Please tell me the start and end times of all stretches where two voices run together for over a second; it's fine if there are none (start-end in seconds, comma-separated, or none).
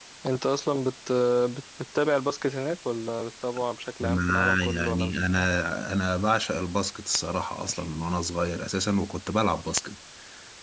4.0-5.5